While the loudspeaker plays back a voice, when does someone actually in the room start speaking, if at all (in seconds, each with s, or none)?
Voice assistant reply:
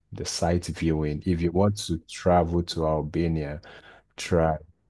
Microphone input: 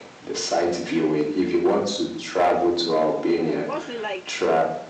3.3 s